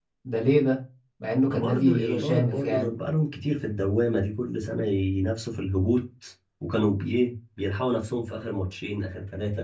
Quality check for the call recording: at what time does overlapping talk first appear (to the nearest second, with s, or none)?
1 s